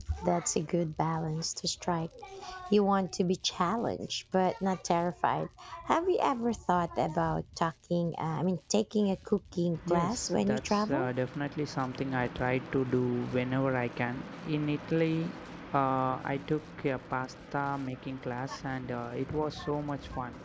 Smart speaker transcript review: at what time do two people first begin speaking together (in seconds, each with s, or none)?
9.8 s